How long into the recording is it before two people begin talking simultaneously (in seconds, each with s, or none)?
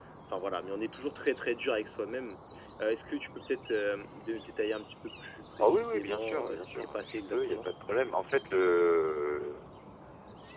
5.6 s